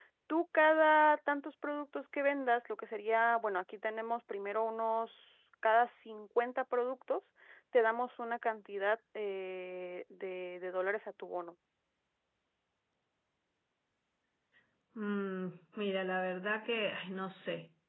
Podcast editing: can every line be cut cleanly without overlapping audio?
Yes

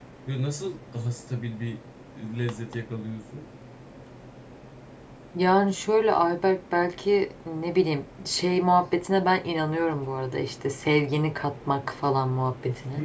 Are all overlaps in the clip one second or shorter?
Yes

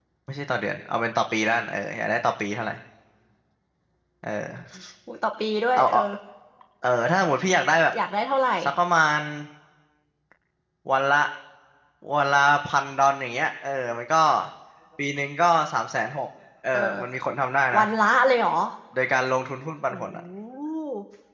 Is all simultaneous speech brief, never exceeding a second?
Yes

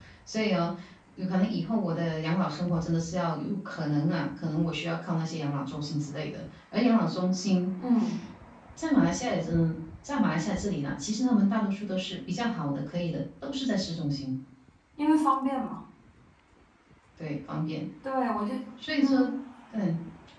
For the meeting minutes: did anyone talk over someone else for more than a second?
No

